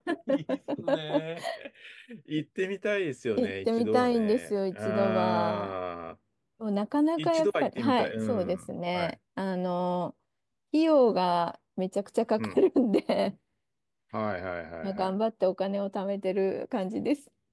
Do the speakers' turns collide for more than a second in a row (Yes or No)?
Yes